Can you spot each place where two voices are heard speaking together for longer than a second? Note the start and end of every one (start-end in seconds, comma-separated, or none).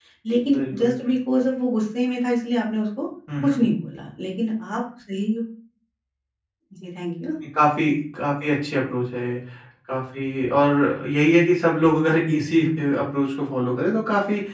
none